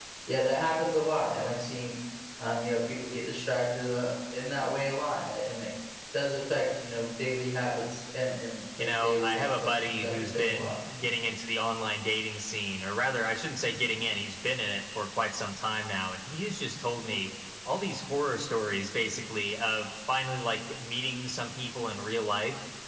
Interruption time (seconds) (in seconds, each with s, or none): 8.8 s